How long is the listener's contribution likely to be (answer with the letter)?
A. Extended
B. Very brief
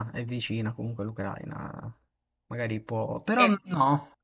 B